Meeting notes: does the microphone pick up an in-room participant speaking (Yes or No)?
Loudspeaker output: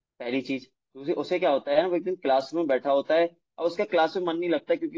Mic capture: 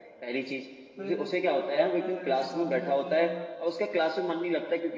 Yes